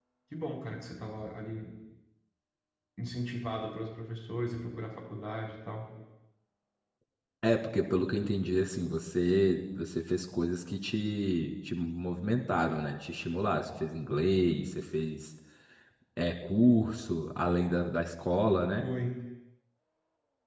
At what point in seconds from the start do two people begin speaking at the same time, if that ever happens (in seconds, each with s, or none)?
none